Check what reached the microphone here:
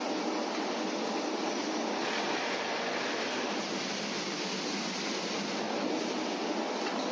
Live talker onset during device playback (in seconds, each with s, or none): none